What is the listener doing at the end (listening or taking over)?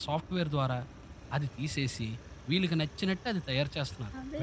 taking over